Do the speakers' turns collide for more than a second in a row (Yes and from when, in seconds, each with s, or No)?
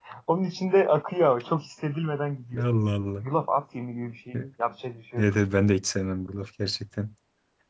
No